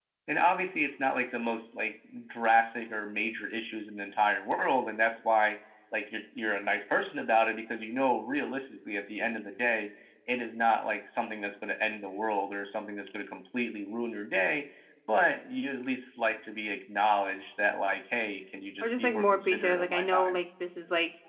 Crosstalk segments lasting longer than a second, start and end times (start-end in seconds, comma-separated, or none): 18.8-20.4